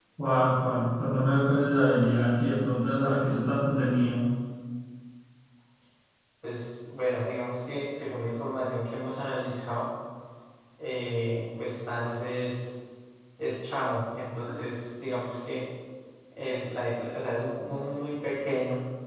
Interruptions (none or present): none